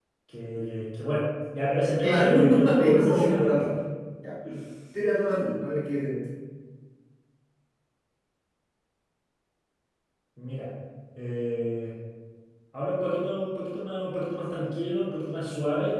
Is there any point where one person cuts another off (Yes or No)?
Yes